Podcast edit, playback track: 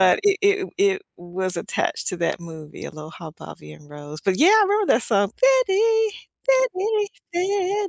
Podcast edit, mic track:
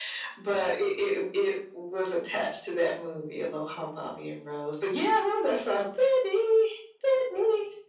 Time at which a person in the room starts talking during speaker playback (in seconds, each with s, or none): none